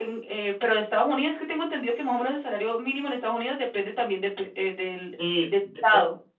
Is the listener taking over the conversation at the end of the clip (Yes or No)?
Yes